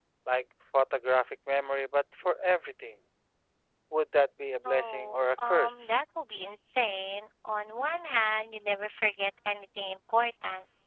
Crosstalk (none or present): present